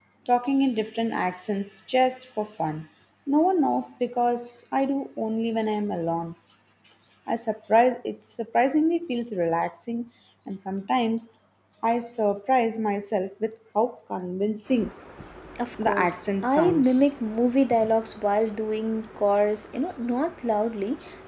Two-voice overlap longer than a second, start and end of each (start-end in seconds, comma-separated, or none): 15.8-17.1